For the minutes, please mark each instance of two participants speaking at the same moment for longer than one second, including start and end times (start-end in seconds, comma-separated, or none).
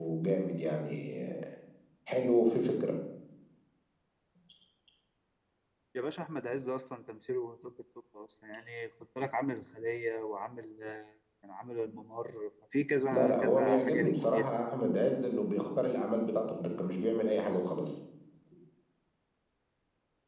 13.1-14.5